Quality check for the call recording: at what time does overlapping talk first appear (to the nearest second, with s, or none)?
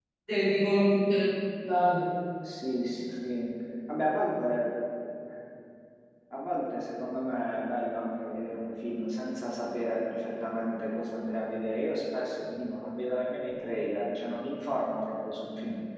none